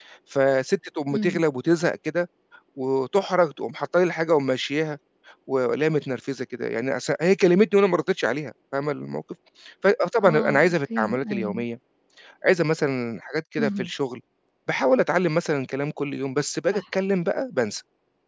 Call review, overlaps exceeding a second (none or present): present